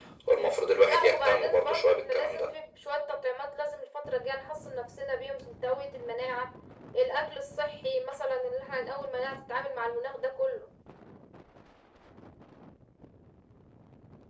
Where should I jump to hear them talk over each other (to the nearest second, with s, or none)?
1 s